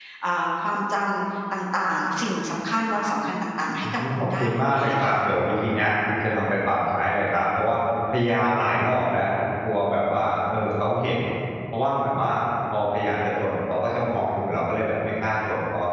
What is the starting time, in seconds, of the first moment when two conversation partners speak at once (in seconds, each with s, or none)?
3.8 s